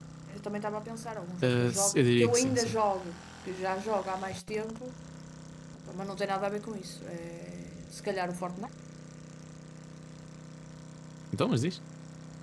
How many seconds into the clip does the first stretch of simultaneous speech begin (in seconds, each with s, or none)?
1.4 s